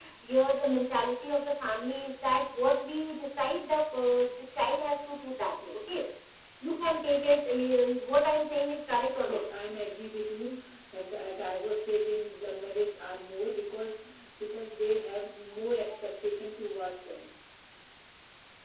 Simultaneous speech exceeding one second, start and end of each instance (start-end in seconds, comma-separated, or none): none